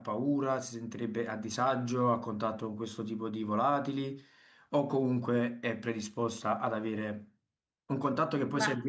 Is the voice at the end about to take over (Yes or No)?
No